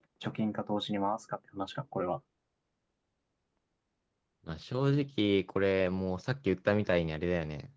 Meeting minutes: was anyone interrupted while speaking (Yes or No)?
No